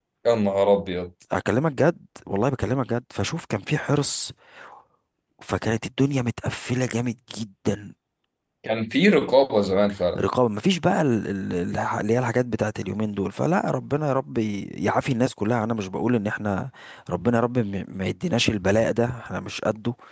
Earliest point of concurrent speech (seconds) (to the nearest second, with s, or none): none